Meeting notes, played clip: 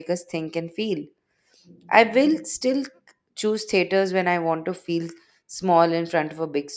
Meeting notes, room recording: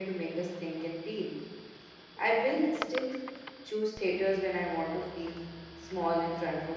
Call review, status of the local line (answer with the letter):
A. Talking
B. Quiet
B